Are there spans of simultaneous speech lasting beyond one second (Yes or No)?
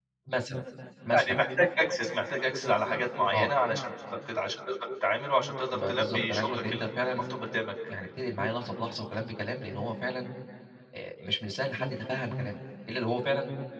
Yes